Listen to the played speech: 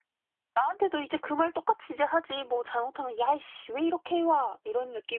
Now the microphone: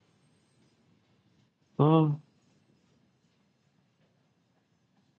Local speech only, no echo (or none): 아,